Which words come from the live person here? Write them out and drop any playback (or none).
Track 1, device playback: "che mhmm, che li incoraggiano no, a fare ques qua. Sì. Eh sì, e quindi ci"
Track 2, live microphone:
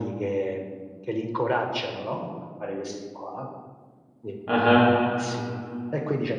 Ah-ah.